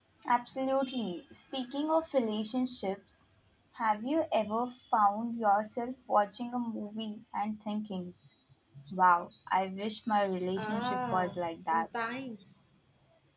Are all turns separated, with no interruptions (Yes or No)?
No